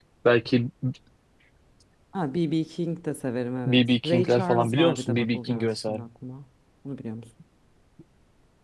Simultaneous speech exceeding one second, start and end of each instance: 3.7-6.0

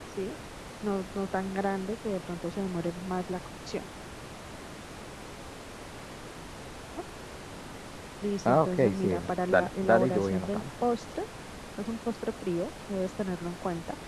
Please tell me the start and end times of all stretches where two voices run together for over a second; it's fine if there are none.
8.4-10.6

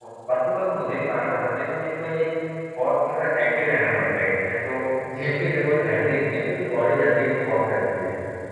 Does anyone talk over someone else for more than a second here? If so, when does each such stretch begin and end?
none

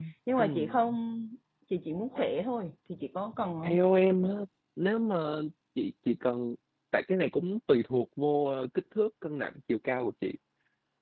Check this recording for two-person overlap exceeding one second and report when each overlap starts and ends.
none

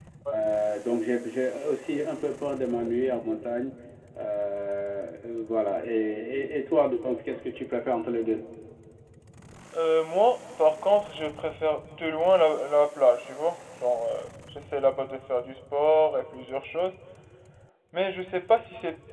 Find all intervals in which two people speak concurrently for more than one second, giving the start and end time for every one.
none

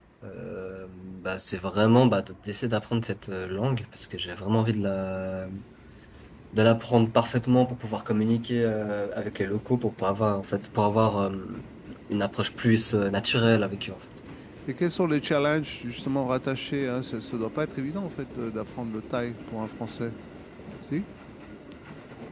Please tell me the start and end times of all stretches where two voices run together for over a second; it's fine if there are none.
none

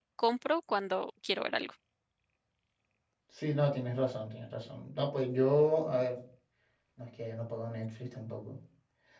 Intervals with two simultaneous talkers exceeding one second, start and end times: none

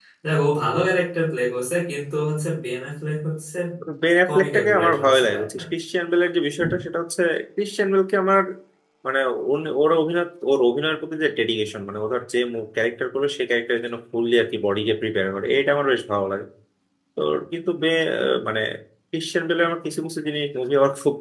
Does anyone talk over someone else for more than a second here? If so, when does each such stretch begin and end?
4.3-5.6

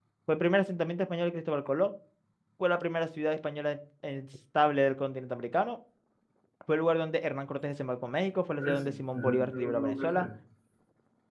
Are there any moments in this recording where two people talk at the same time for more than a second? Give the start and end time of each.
8.6-10.2

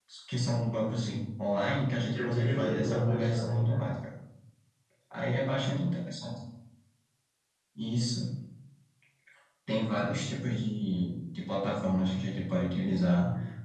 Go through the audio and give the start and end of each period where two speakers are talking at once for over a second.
2.1-3.8

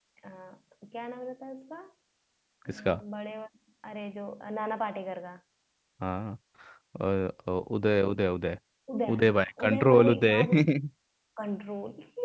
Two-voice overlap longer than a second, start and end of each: 9.1-10.5

